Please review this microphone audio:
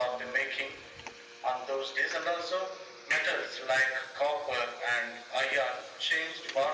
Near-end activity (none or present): none